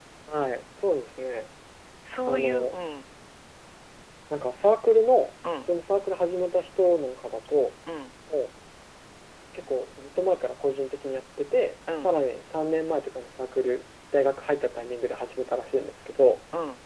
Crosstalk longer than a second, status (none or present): none